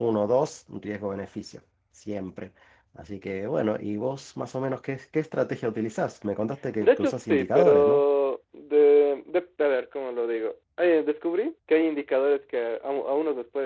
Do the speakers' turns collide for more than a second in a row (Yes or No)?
Yes